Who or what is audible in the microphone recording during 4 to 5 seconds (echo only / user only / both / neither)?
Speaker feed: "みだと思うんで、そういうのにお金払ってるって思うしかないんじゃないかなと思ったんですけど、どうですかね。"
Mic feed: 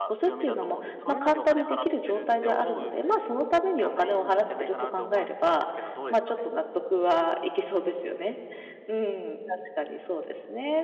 both